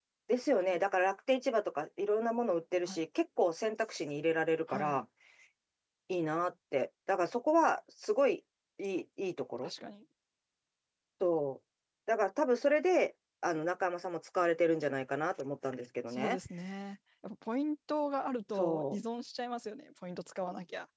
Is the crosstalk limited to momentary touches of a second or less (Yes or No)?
Yes